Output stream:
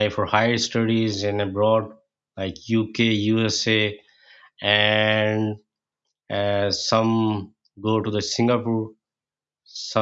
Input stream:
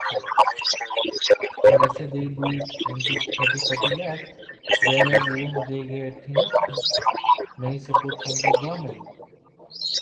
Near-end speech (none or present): present